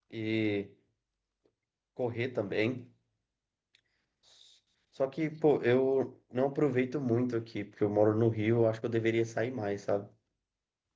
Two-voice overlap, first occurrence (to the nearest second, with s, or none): none